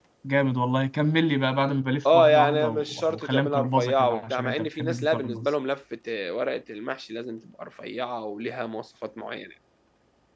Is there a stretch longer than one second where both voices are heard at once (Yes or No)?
Yes